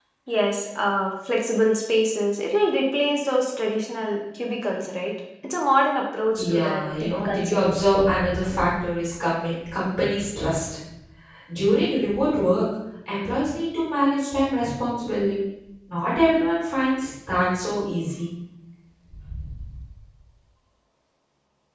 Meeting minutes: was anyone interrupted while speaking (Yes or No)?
Yes